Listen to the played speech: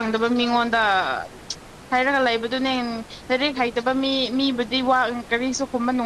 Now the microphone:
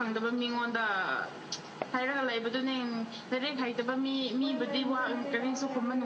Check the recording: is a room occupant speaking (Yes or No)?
Yes